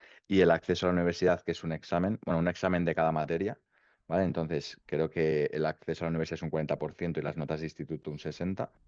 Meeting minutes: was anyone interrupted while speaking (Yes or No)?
No